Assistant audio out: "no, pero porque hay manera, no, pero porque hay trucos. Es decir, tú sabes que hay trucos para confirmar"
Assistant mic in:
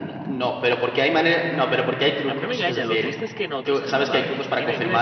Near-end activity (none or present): present